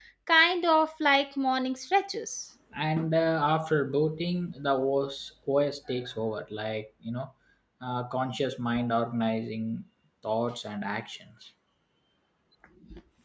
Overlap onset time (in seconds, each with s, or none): none